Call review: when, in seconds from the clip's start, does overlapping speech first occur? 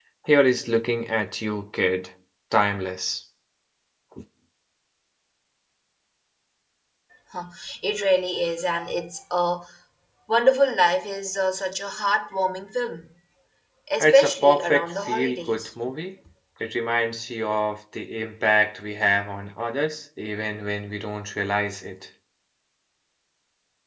14.0 s

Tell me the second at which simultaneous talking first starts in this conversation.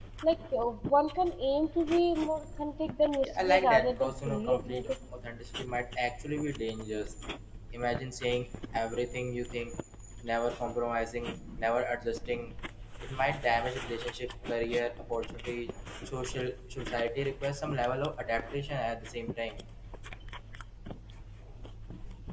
3.2 s

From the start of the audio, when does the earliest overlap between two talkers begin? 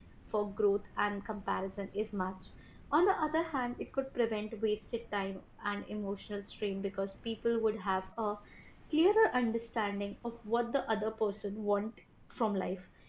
none

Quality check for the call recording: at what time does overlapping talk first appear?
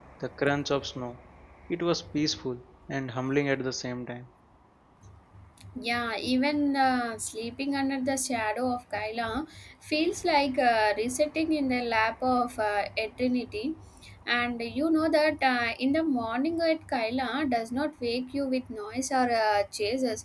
none

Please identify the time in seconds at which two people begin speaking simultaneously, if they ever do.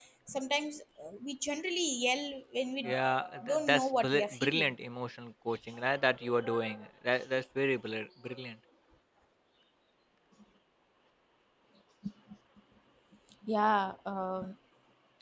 3.5 s

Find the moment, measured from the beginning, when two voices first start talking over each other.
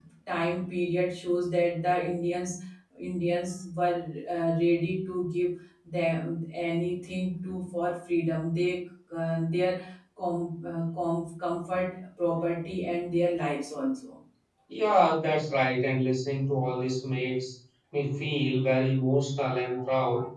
none

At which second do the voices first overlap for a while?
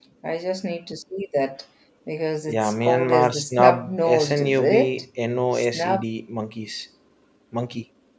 2.5 s

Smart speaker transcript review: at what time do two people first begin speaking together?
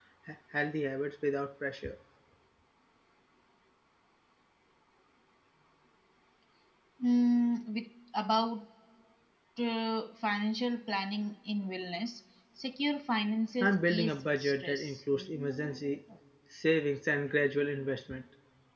13.6 s

